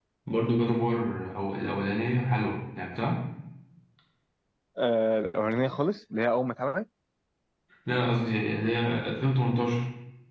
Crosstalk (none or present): none